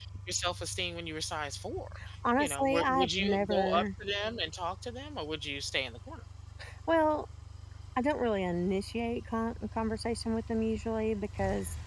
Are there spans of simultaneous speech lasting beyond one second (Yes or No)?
Yes